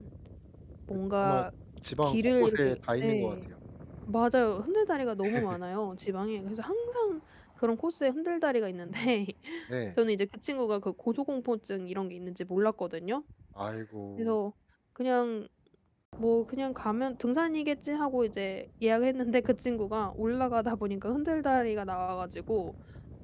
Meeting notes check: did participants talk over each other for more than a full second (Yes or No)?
Yes